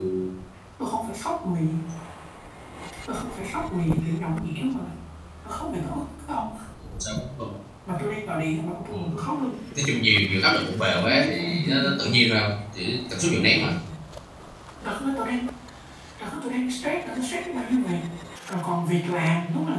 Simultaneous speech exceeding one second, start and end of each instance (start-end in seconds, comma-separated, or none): 10.9-12.2